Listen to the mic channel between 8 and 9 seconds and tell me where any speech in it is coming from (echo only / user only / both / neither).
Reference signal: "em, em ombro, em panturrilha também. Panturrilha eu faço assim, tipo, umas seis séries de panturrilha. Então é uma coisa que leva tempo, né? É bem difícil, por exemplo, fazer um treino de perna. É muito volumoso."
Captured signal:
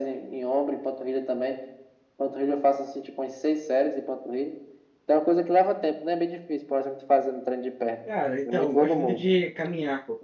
both